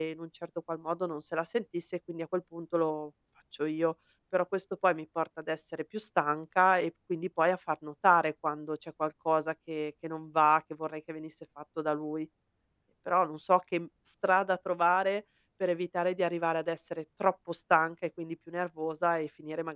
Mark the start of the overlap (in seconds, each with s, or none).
none